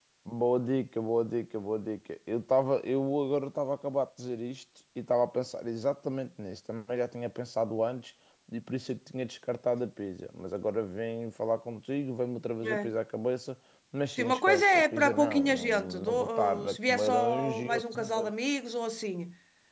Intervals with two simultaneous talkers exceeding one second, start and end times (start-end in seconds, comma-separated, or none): 14.2-18.3